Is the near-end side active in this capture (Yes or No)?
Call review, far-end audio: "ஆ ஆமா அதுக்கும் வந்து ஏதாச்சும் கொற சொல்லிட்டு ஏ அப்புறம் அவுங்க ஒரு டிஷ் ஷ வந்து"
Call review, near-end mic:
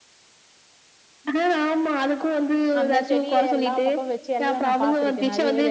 Yes